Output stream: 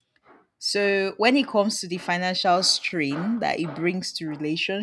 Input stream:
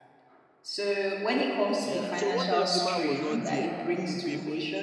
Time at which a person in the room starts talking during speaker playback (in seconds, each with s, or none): 1.8 s